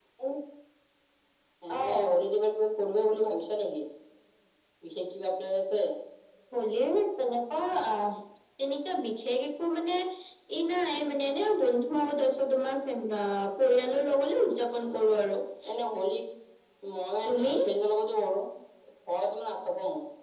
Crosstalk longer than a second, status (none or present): none